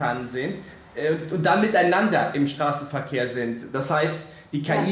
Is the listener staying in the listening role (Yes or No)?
Yes